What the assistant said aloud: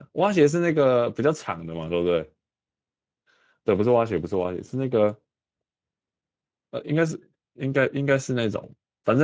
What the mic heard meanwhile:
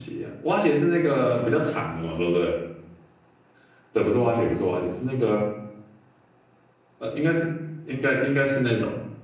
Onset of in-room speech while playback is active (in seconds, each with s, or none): none